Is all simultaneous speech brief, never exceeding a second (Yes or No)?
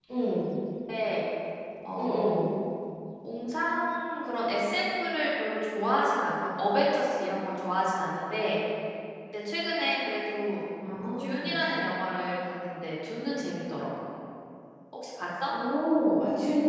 Yes